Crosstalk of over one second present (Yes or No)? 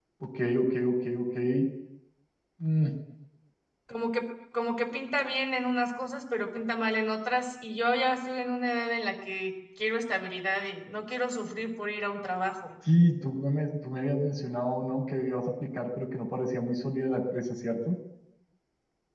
No